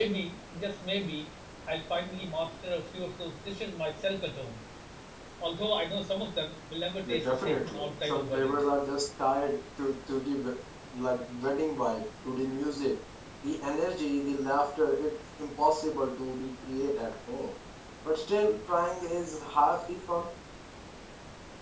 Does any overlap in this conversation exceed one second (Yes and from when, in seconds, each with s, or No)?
Yes, from 7.0 s